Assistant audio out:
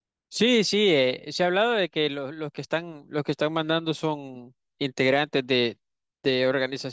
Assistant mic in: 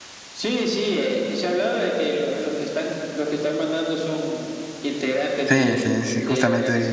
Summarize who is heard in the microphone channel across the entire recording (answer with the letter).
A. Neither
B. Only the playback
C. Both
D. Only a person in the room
C